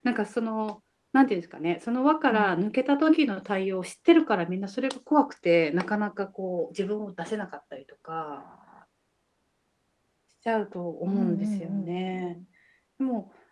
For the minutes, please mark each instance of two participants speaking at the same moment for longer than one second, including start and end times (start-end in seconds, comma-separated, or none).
11.1-12.4